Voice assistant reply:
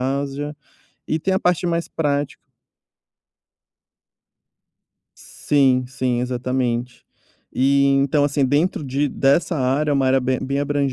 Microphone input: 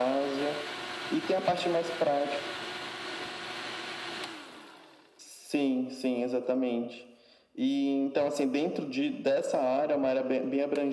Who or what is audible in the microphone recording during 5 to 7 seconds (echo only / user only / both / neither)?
echo only